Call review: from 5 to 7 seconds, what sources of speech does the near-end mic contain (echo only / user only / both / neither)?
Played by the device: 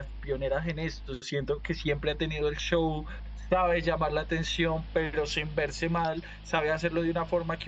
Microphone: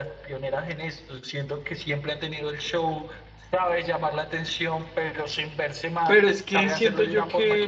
both